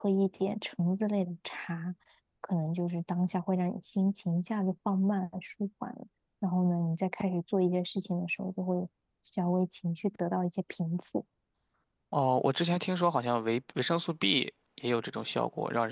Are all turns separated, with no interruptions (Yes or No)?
Yes